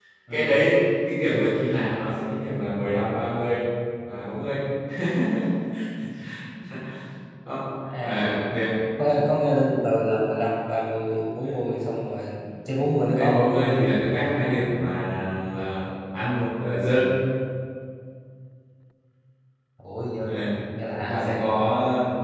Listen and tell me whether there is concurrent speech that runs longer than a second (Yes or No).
No